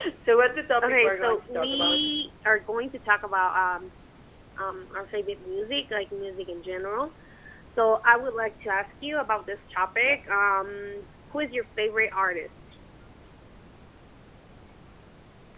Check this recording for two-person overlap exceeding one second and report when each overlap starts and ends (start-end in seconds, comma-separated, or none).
0.8-2.1